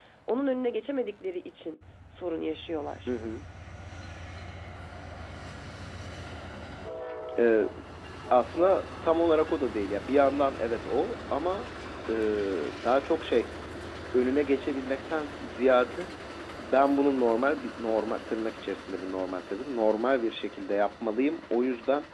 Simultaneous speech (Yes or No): No